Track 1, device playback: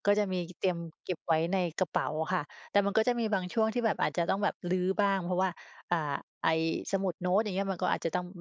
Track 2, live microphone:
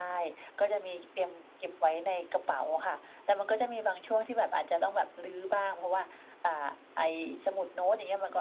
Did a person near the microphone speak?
No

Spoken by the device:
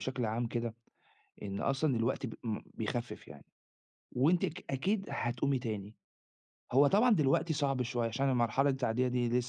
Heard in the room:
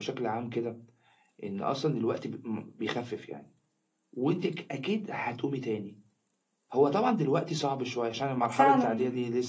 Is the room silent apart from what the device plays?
No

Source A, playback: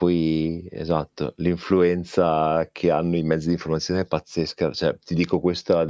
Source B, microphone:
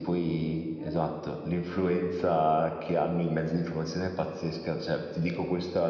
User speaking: Yes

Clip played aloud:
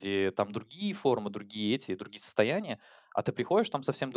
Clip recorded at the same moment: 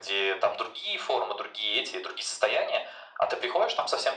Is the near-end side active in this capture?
No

